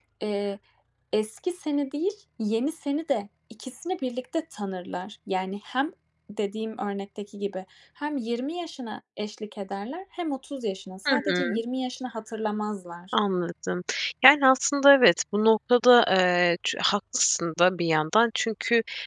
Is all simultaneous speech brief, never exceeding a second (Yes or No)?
Yes